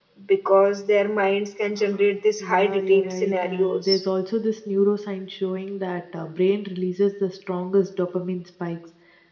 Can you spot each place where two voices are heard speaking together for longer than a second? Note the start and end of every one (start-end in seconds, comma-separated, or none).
2.4-4.0